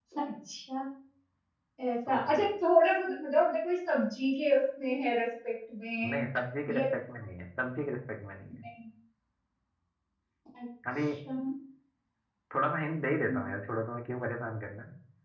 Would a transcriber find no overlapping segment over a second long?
Yes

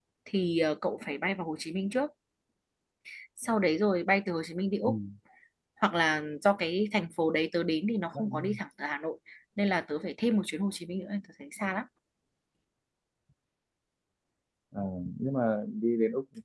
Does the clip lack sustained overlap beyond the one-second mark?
Yes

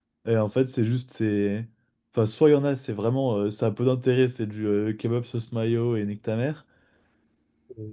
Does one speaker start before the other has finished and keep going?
No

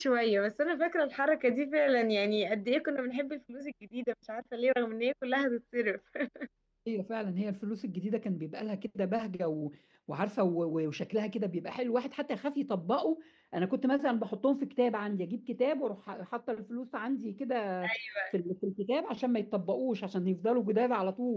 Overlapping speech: No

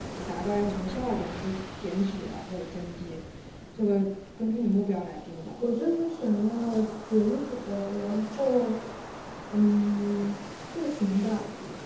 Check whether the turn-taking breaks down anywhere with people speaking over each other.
No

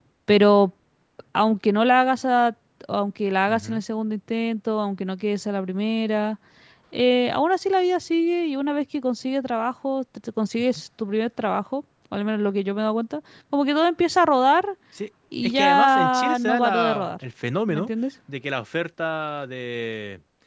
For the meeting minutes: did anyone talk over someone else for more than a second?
Yes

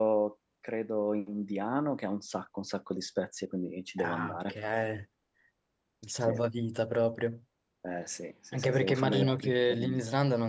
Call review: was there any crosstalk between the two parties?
Yes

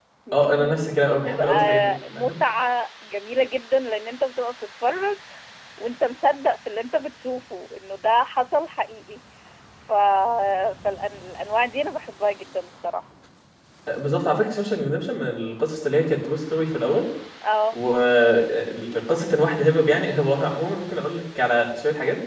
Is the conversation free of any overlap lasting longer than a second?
No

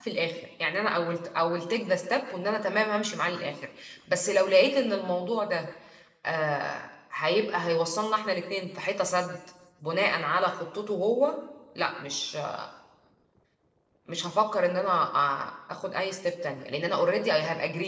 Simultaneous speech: No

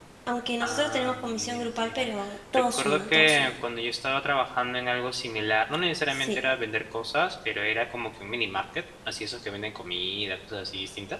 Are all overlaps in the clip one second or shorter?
No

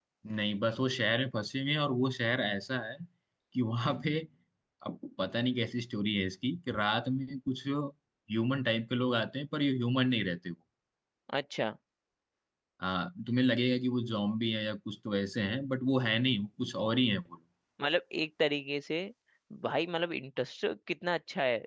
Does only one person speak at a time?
Yes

